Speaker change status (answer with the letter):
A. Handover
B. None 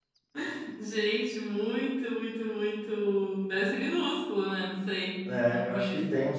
A